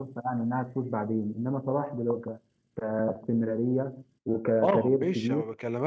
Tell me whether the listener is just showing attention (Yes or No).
No